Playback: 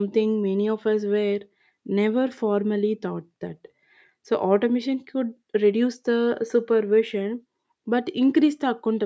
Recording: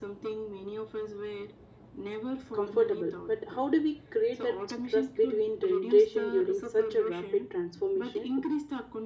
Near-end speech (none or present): present